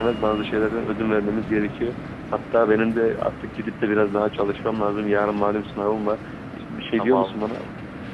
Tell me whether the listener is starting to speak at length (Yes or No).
Yes